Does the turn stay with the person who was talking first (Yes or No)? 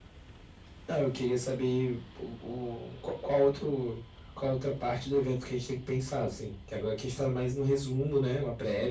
No